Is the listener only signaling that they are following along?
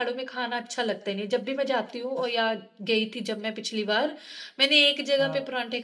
Yes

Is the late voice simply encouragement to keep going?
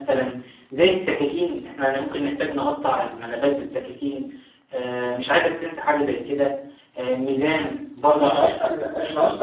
No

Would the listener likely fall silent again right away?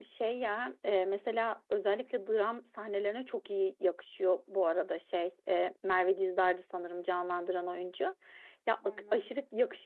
Yes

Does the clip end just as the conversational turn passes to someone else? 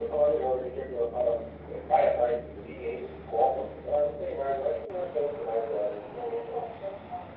Yes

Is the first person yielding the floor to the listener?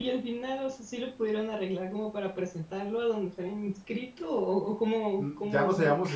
Yes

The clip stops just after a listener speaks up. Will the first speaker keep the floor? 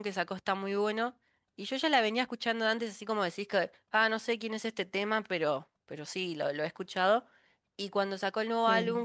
Yes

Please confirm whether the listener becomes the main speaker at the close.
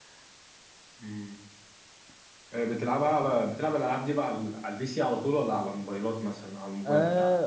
Yes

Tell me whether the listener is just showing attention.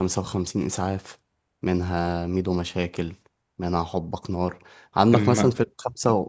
Yes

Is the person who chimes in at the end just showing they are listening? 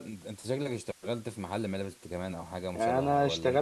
No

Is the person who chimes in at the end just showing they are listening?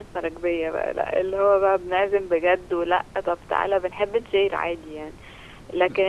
Yes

